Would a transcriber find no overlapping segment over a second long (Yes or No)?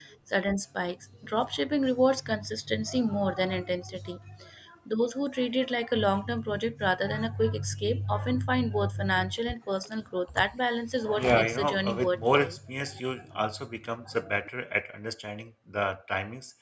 No